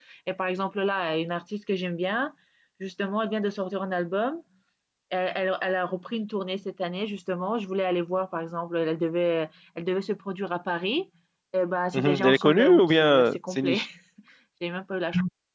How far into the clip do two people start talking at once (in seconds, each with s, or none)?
11.9 s